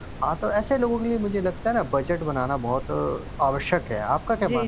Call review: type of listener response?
taking over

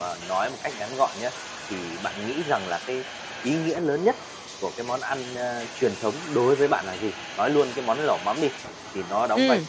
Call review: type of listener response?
listening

